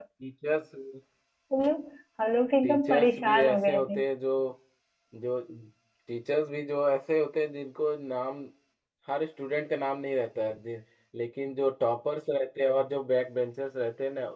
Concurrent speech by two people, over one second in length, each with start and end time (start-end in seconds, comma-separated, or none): 2.6-4.0